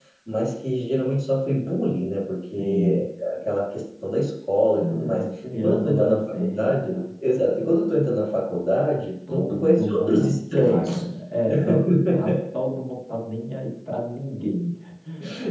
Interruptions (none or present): present